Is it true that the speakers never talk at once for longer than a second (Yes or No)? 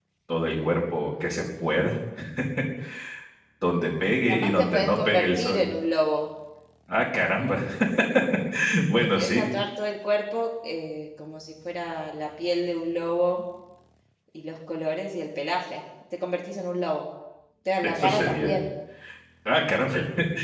No